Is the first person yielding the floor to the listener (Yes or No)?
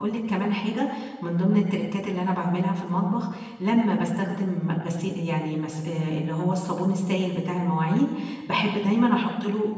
No